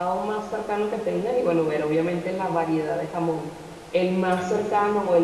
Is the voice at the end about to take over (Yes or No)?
No